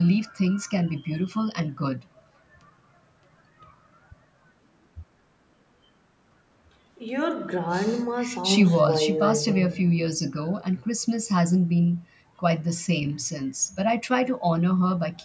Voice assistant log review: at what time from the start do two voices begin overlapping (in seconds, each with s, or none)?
8.4 s